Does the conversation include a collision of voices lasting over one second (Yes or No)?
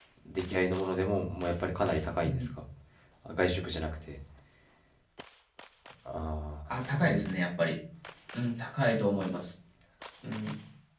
No